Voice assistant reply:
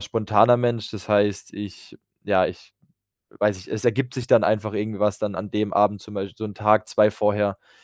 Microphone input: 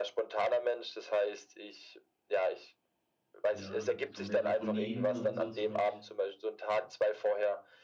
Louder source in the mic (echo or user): echo